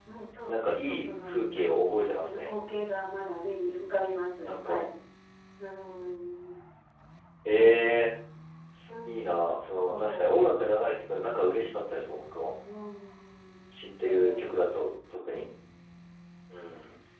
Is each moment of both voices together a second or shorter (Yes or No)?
No